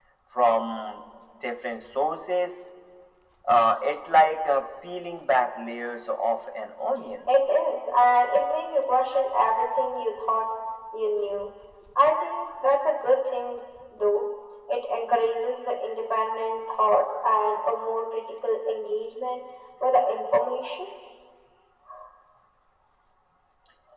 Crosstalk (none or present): none